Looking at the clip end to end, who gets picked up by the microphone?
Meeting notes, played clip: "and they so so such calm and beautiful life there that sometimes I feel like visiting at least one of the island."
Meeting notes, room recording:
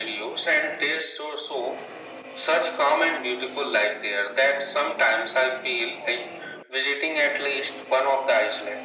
echo only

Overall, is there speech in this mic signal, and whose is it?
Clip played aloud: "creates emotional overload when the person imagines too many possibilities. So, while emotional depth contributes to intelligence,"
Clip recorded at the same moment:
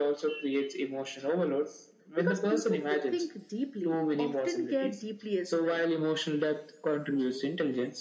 both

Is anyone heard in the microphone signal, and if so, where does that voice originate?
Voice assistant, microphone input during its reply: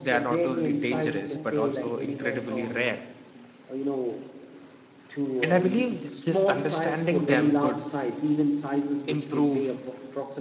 both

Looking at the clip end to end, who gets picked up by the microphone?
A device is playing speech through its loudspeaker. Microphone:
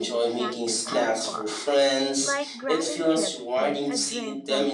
both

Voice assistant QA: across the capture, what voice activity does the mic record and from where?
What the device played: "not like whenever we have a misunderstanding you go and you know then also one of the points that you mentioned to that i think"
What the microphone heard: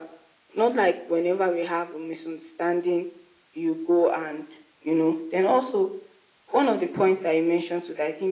echo only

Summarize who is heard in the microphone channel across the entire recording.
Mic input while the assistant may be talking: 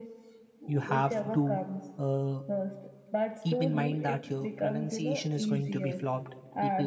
both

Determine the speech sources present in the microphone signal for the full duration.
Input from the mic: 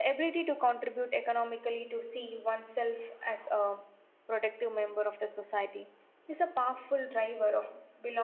echo only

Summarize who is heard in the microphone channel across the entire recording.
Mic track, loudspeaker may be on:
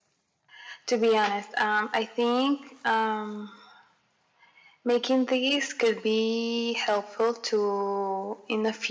echo only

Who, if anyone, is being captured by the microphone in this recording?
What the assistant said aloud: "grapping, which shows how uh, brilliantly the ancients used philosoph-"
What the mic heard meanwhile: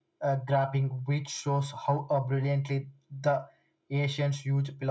echo only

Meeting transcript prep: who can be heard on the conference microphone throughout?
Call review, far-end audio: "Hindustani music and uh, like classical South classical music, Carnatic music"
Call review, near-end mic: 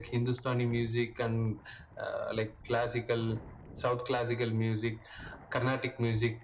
echo only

